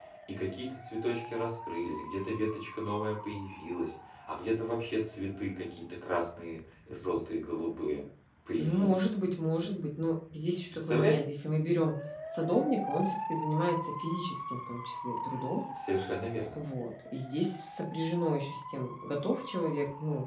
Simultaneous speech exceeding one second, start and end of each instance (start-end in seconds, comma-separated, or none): none